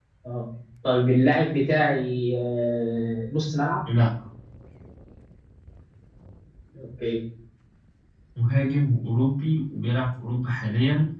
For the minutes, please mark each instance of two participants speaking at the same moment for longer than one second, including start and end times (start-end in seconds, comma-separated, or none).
none